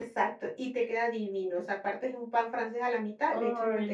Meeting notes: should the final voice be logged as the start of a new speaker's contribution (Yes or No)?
No